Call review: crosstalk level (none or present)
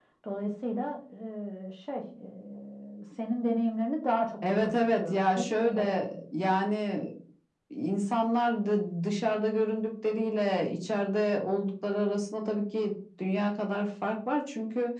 present